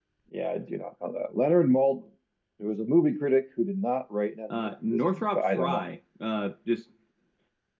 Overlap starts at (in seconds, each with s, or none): 4.5 s